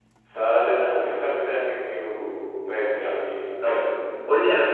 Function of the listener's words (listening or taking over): taking over